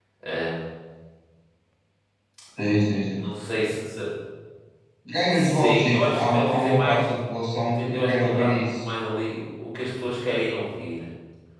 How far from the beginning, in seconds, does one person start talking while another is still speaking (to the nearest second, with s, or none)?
5 s